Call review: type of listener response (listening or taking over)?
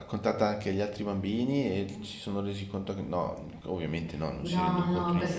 taking over